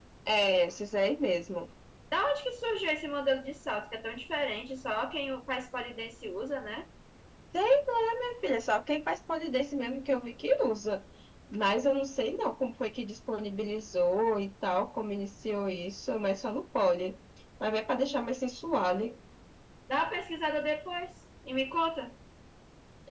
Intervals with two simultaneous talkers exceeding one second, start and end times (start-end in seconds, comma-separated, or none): none